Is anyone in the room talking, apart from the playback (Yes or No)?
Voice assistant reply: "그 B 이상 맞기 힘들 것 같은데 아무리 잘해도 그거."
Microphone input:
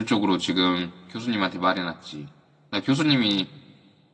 Yes